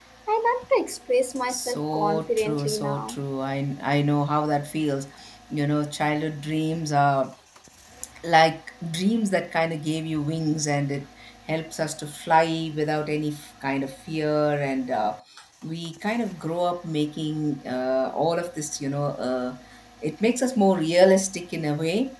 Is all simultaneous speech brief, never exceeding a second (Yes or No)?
No